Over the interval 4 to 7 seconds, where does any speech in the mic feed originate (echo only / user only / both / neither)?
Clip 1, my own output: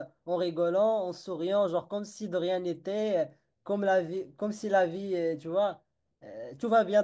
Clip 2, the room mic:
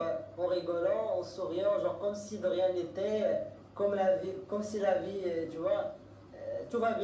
echo only